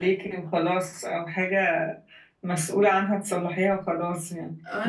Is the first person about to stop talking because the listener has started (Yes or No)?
Yes